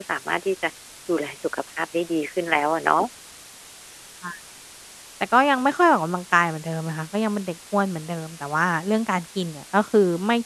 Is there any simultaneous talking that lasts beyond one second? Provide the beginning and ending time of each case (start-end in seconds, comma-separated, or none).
none